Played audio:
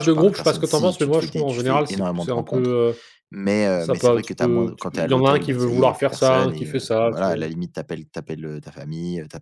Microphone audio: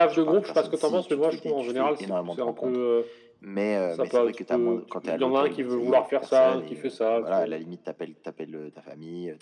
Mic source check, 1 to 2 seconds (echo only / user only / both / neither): echo only